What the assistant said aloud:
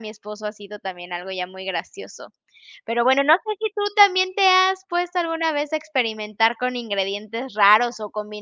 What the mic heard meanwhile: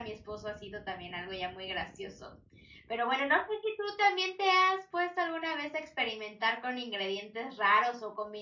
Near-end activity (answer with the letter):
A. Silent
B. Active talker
A